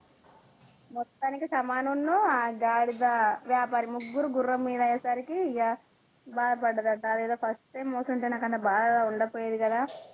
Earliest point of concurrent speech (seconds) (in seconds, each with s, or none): none